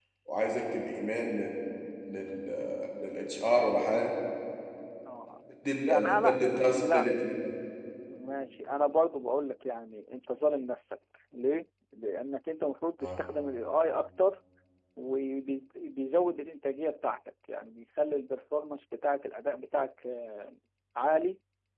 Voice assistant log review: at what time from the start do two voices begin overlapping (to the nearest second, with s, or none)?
6 s